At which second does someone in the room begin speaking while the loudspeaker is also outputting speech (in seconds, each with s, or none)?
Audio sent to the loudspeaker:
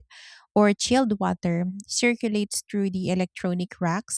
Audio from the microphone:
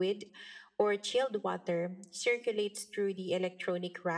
none